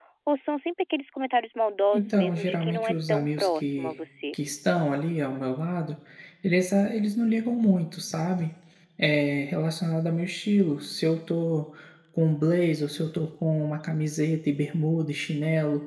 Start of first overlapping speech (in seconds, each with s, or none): 1.9 s